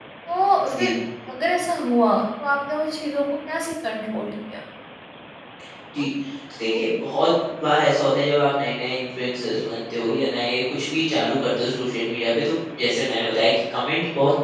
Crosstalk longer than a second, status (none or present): none